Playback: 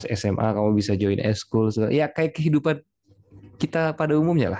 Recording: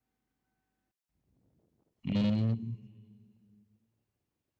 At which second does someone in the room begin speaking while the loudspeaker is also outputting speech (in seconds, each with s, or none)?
2.0 s